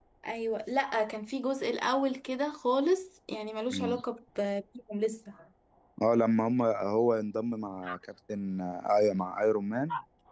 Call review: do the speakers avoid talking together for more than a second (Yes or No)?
Yes